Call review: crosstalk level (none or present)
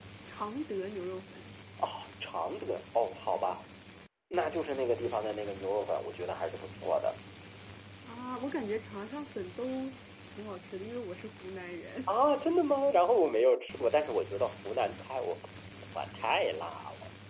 none